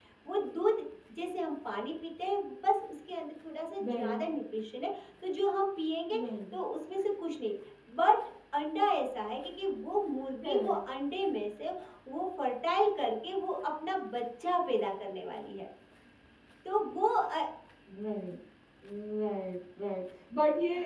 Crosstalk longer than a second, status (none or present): none